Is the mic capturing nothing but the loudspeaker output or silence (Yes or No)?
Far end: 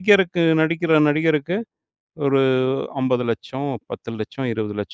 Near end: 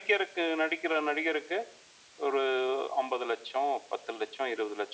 Yes